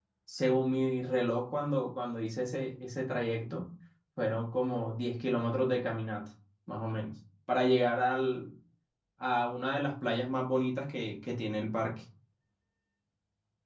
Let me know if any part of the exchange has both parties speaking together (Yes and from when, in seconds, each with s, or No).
No